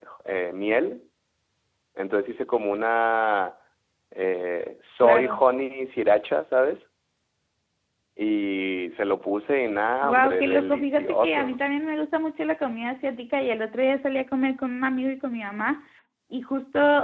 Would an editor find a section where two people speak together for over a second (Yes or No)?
Yes